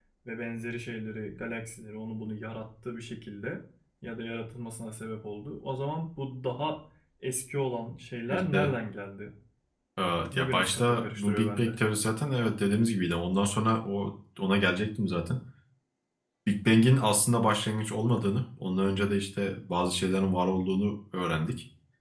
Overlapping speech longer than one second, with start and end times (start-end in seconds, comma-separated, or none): 10.3-11.7